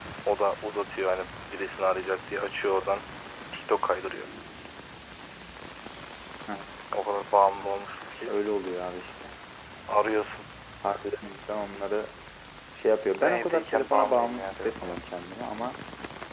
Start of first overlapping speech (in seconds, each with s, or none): 13.2 s